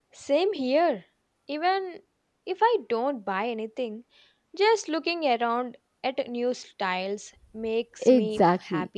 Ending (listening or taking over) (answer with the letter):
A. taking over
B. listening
A